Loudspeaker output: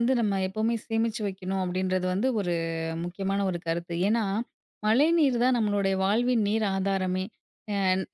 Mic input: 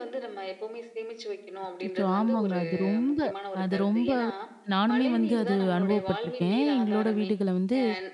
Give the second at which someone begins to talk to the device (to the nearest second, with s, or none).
2 s